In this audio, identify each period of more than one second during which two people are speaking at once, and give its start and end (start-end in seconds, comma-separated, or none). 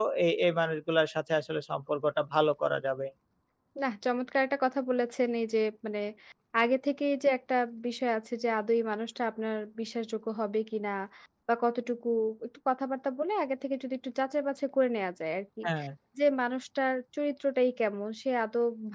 none